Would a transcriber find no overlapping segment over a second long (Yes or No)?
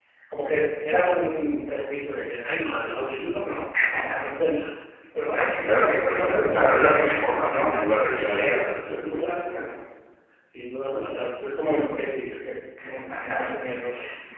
No